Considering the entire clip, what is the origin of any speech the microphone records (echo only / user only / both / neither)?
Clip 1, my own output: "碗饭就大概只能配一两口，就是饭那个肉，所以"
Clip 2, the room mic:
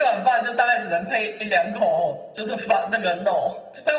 echo only